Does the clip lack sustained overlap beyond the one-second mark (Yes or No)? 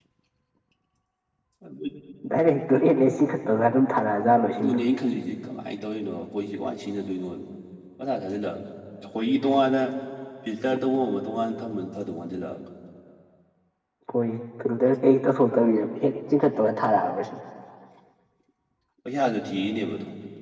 Yes